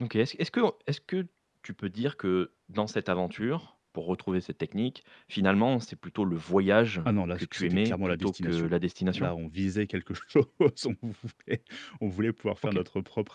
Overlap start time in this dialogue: 7.0 s

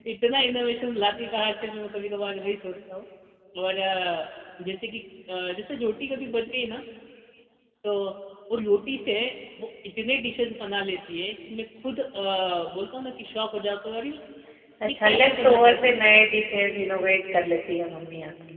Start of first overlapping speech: 14.8 s

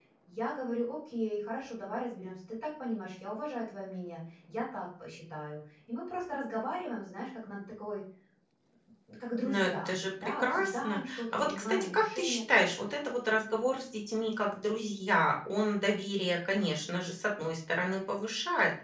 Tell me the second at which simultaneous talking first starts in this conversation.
9.4 s

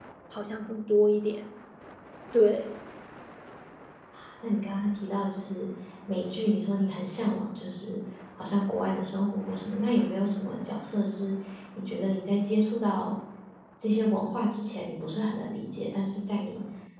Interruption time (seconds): none

